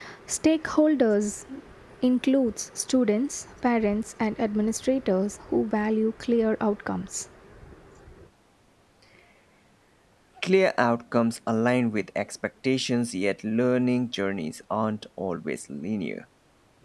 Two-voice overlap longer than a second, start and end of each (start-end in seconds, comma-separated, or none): none